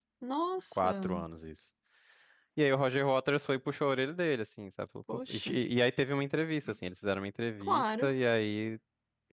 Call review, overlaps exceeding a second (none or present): none